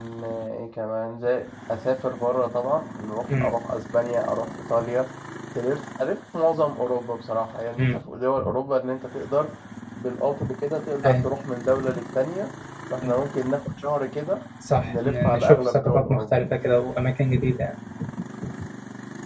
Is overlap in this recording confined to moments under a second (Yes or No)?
No